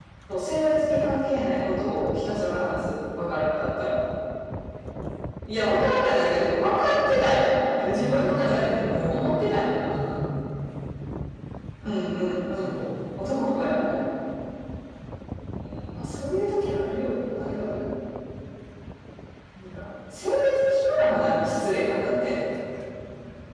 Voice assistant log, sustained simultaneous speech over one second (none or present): present